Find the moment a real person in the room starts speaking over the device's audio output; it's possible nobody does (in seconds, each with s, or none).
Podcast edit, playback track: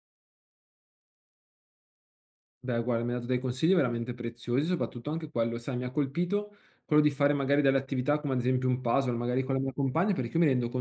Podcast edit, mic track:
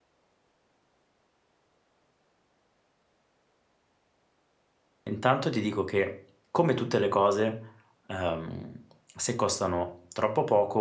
5.0 s